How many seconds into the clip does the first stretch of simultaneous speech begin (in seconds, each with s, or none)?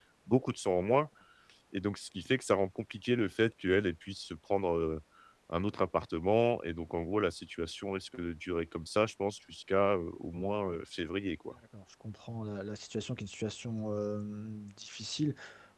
none